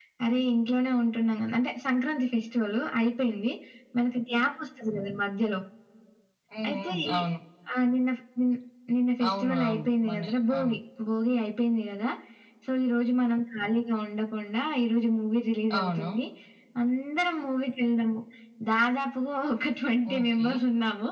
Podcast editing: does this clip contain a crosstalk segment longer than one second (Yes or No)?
Yes